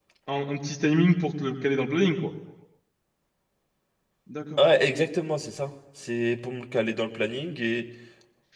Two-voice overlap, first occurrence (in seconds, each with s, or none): none